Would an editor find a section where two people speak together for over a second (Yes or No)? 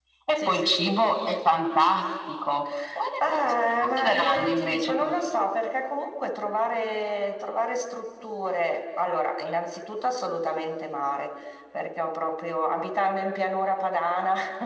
Yes